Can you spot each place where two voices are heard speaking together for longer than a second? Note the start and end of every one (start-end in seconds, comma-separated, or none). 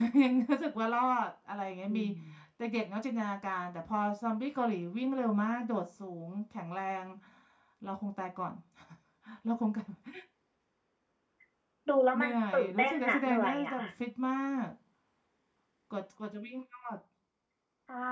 12.2-13.7